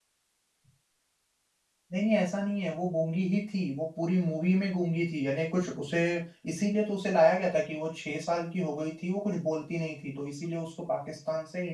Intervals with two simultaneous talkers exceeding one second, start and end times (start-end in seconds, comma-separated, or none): none